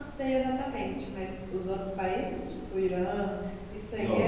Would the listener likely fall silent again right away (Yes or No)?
No